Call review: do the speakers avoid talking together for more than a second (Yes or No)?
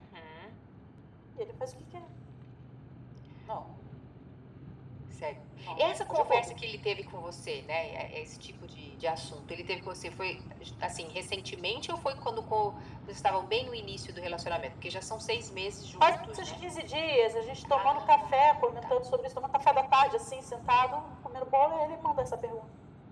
No